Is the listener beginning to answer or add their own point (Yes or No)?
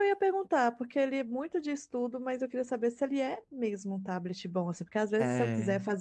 No